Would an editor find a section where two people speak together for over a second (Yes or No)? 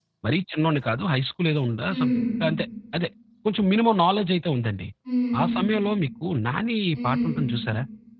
No